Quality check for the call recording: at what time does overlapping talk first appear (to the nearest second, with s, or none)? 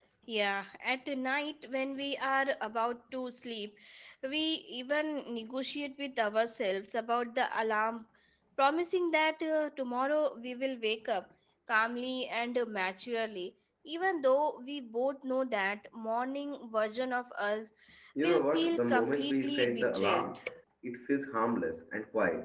18 s